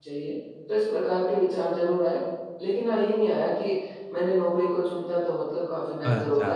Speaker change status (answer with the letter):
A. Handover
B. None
B